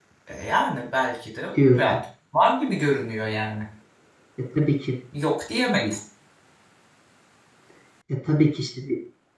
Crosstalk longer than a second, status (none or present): none